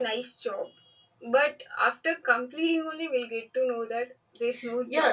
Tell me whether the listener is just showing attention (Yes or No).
No